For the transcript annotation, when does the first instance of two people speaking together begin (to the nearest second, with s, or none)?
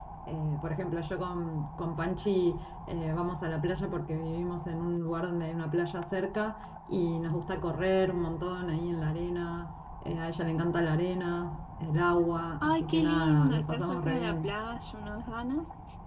13 s